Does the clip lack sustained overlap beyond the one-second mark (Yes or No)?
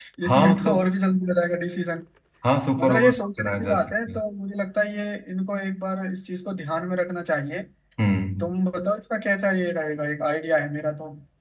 No